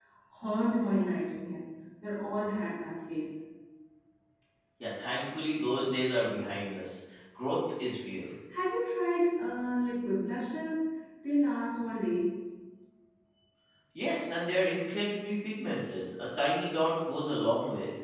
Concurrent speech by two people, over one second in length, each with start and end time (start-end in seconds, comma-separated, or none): none